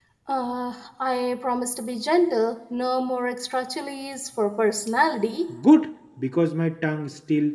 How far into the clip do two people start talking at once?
none

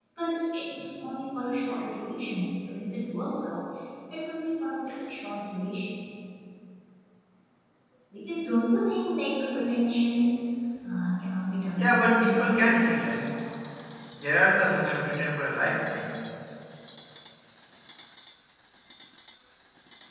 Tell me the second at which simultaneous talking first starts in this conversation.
12 s

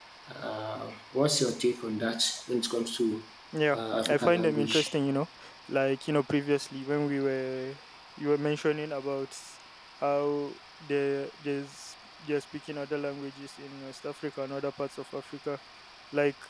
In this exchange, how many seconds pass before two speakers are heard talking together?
4 s

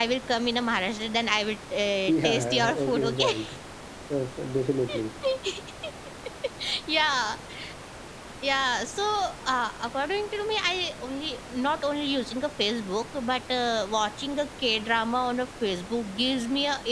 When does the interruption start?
2 s

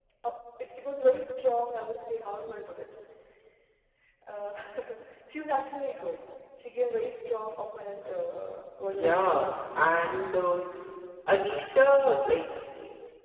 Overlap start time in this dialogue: 9 s

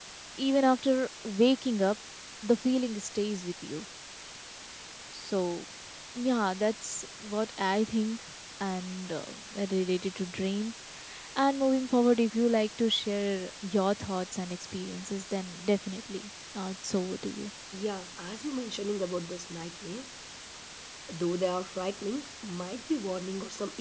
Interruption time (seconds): none

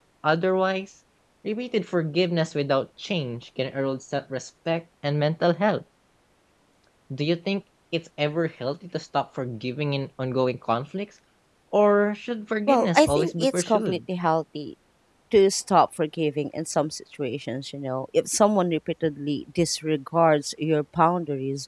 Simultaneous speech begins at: 13 s

